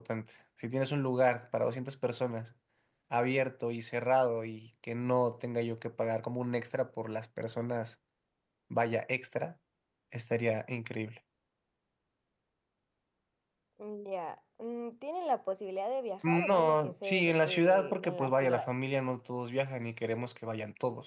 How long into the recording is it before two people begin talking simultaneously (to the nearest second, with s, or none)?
16 s